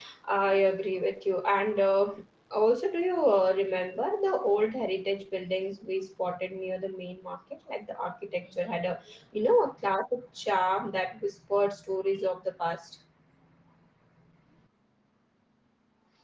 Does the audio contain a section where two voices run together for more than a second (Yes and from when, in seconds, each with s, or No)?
No